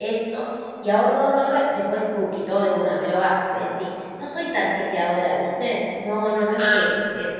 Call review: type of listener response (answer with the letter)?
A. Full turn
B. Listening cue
B